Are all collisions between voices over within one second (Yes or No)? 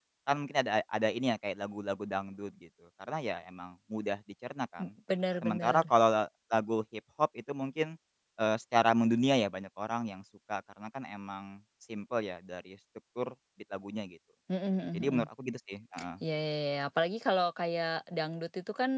Yes